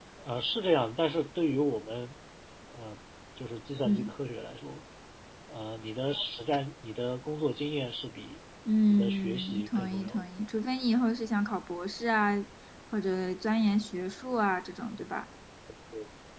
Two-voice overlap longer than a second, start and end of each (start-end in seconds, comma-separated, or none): 8.9-10.2